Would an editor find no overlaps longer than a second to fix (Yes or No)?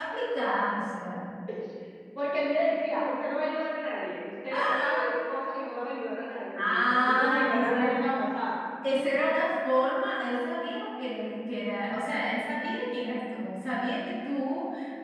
No